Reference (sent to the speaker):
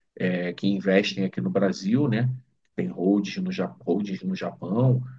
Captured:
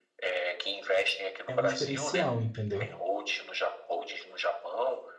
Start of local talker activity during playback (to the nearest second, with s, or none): 1 s